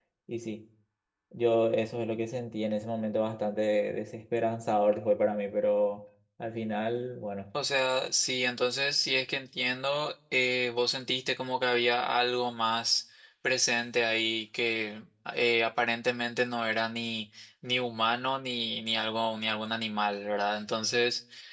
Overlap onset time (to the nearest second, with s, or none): none